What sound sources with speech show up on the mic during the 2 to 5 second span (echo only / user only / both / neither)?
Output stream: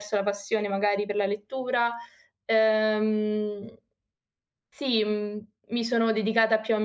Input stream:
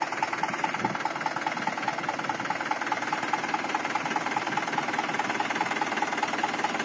neither